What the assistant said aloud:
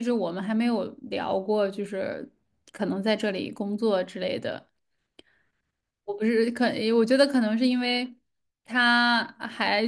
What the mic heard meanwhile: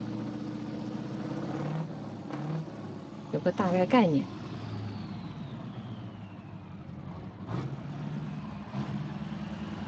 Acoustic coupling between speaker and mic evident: No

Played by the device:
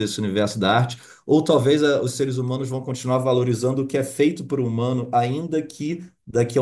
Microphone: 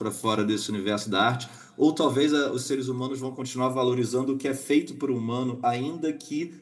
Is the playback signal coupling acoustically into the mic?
Yes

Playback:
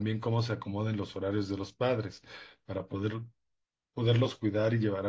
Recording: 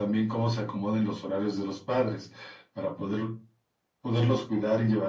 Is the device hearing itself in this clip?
Yes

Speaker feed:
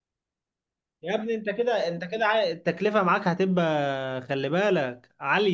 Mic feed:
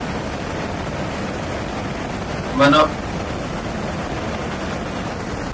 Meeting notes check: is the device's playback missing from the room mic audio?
Yes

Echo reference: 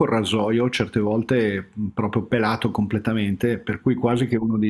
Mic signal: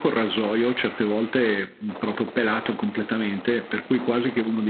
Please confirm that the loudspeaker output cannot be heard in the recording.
No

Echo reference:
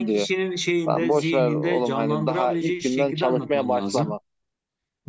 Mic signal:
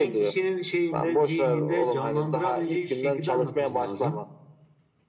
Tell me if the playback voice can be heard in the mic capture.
Yes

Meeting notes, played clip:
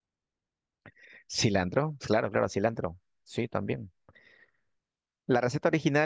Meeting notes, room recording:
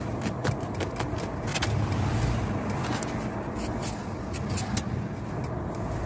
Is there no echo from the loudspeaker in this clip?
Yes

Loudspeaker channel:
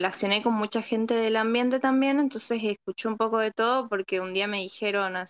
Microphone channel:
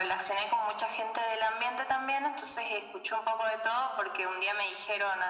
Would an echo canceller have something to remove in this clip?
Yes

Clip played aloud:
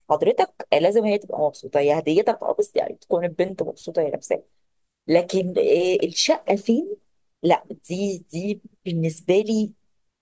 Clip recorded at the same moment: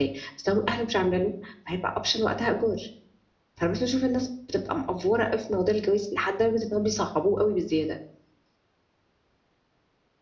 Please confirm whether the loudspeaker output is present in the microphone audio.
No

